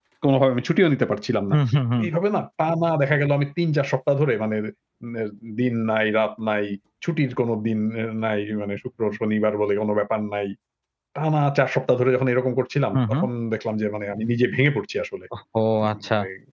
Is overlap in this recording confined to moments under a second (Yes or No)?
Yes